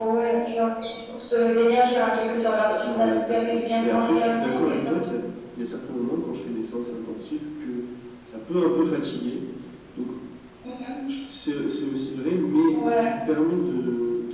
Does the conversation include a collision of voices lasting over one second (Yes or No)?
Yes